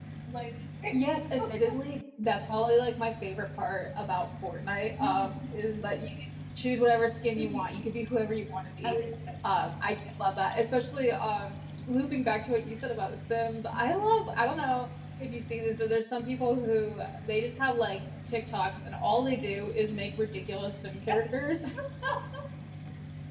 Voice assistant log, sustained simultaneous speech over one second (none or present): none